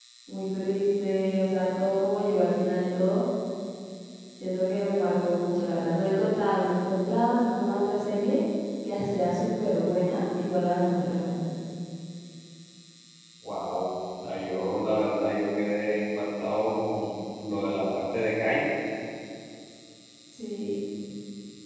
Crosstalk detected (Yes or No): No